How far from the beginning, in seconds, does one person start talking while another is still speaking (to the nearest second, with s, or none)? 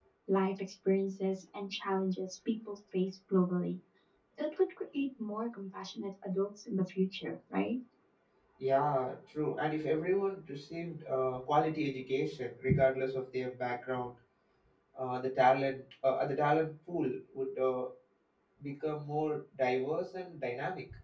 none